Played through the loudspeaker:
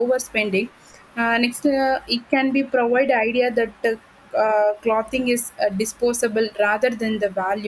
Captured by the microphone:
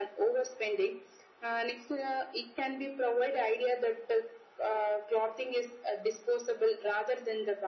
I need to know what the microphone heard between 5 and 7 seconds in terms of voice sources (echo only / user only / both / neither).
echo only